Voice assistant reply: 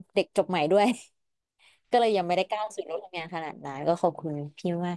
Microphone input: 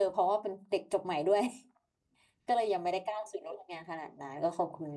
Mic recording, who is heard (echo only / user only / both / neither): echo only